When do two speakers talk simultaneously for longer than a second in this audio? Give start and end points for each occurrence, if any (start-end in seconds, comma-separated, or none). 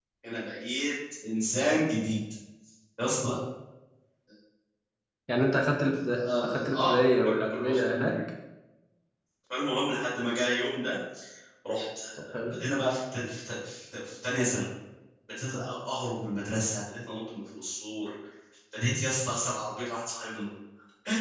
6.1-8.2